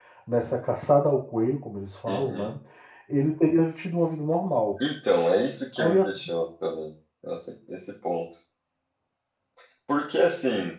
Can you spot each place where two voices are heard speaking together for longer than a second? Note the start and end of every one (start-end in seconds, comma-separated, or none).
none